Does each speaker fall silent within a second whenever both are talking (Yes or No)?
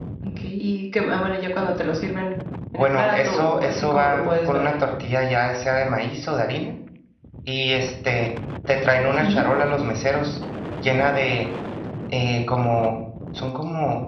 No